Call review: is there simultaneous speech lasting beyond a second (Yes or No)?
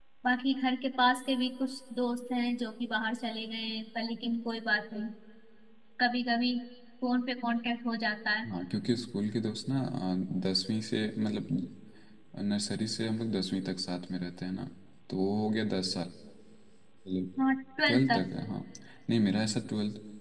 No